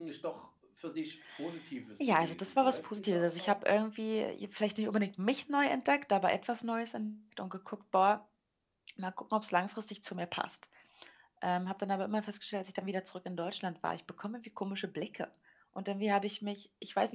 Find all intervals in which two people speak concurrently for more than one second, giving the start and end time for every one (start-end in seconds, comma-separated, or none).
2.0-3.6